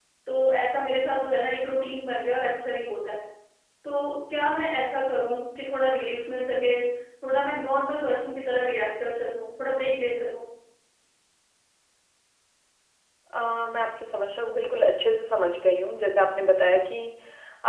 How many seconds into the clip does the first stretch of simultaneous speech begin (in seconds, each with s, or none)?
none